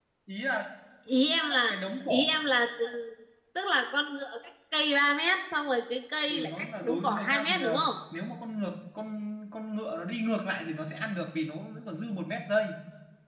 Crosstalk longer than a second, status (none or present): present